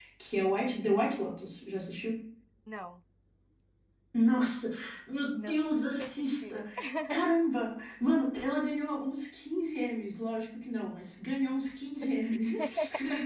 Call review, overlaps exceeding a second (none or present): present